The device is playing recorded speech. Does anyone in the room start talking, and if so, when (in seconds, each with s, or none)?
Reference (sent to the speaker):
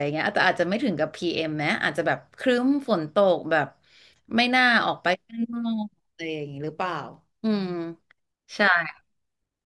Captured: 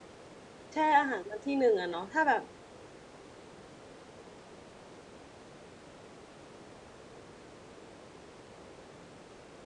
0.7 s